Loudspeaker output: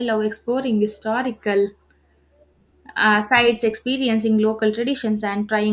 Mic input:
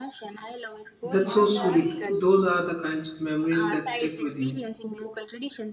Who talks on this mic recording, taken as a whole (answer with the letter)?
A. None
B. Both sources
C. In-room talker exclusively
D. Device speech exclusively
B